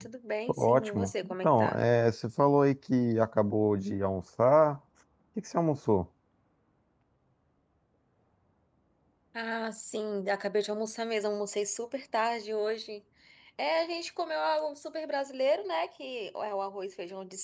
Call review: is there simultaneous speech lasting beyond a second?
Yes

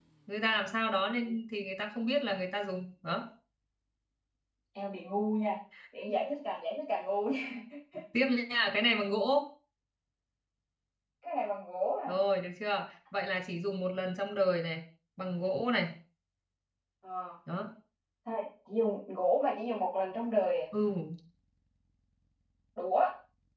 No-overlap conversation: Yes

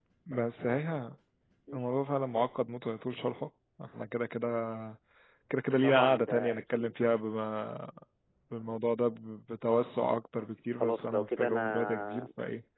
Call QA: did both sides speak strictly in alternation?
No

